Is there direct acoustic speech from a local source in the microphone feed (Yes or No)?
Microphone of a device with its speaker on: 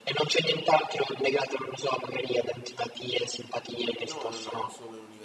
Yes